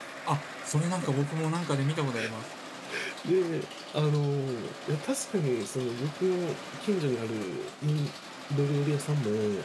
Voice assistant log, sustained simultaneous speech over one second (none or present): none